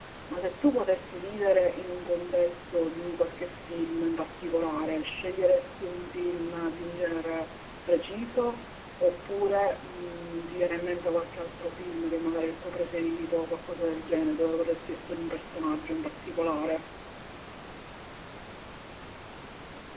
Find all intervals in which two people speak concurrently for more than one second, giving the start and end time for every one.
none

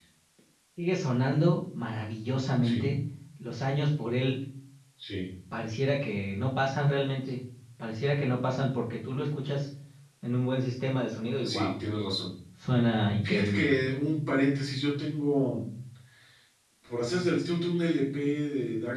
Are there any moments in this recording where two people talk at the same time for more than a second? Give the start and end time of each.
none

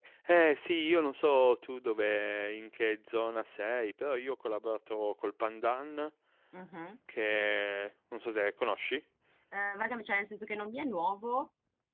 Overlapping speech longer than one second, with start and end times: none

